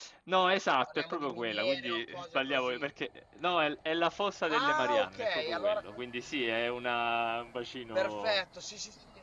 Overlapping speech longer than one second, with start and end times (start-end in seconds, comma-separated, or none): 0.9-2.9, 4.5-6.0